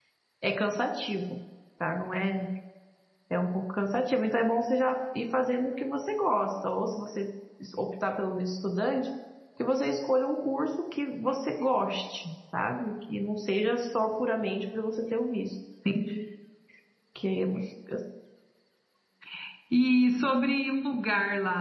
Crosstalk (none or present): none